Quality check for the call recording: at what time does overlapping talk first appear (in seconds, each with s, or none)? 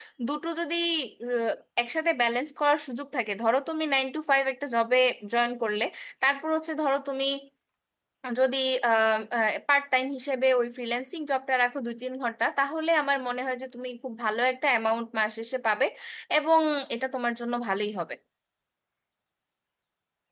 none